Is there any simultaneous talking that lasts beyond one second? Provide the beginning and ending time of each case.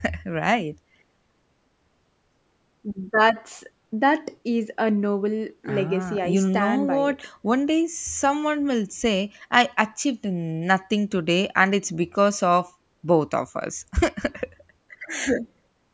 5.7-7.1

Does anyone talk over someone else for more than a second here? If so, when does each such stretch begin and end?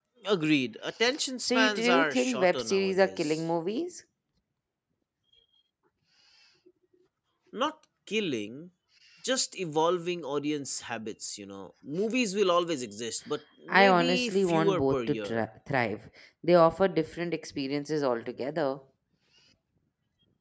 1.4-3.4, 13.7-15.4

